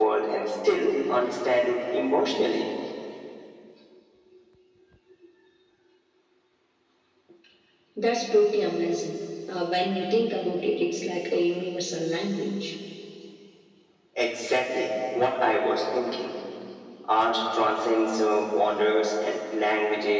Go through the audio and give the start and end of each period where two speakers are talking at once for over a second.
none

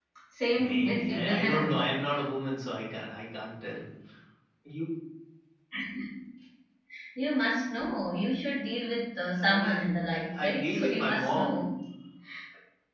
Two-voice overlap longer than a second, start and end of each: 0.5-2.0, 9.4-11.6

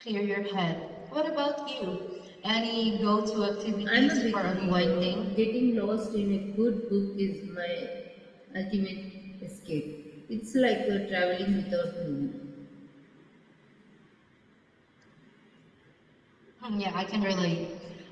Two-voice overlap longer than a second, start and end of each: 3.9-5.2

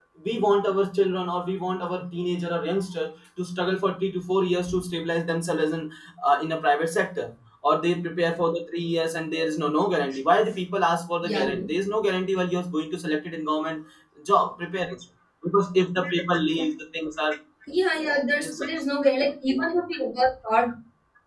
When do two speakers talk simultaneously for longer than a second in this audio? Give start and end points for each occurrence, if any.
none

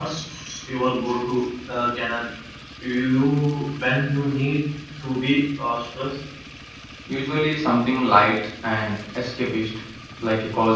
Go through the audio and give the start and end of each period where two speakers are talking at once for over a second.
none

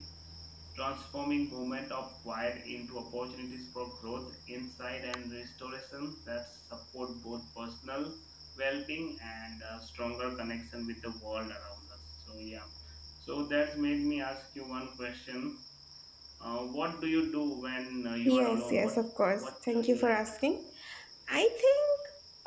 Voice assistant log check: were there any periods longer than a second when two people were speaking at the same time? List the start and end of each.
18.2-20.5

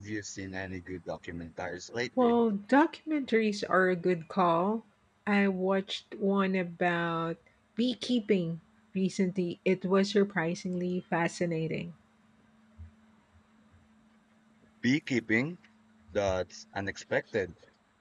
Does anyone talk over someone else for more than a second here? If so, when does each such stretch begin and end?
none

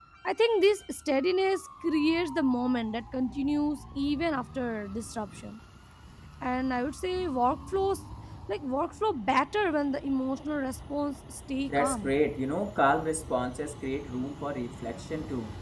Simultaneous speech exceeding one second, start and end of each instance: none

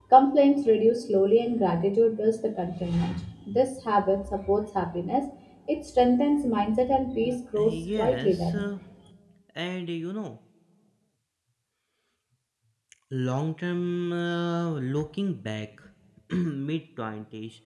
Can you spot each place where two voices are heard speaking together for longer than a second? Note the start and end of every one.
7.2-8.6

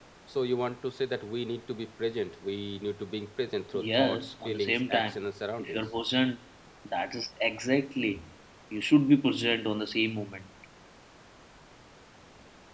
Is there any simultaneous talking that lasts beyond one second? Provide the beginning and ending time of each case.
3.7-5.2

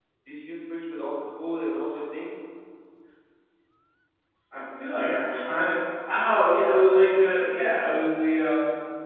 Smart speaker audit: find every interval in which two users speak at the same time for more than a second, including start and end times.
none

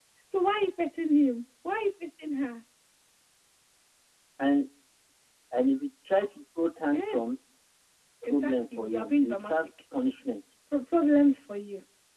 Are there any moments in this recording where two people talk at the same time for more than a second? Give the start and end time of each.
8.2-9.7

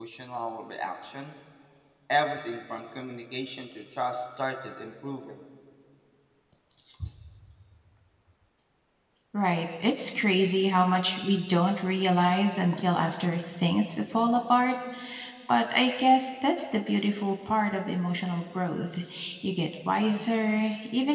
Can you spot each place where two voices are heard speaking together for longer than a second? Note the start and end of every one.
none

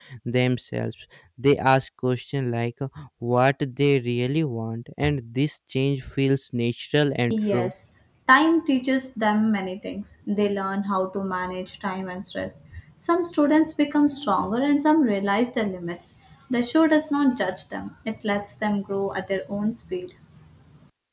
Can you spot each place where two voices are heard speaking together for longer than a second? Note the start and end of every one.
none

